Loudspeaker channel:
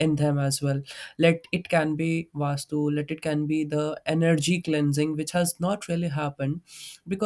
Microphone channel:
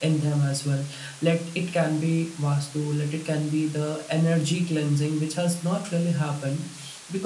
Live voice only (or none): none